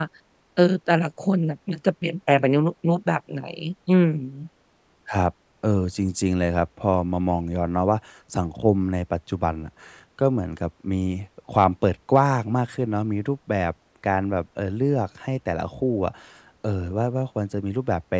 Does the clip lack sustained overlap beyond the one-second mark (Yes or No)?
Yes